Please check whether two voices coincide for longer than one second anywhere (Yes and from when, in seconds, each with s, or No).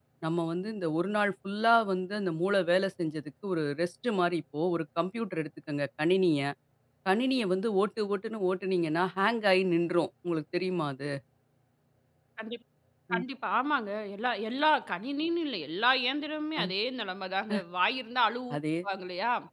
No